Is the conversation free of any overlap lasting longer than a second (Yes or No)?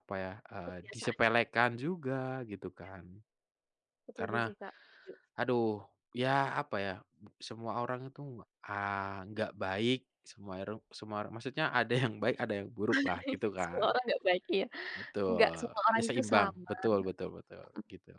No